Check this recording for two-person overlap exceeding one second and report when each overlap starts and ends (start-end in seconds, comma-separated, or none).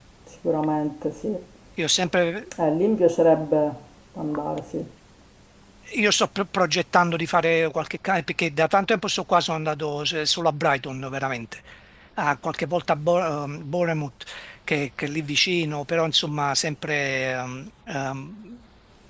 none